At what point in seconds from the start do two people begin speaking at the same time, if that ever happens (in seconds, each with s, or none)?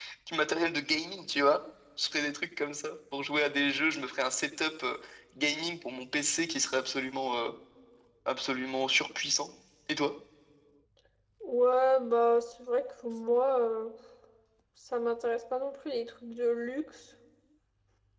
none